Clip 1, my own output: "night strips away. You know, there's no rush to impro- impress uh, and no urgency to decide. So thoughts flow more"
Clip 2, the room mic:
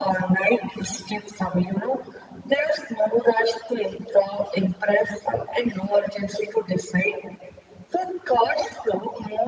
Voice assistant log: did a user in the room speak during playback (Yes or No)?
No